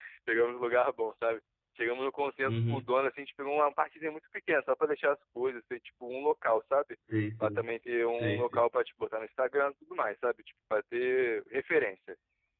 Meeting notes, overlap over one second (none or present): none